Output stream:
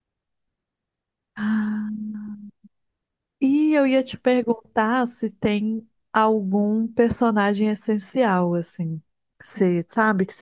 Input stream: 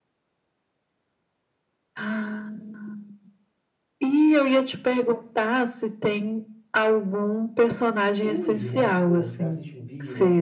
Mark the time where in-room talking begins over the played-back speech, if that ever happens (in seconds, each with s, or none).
8.2 s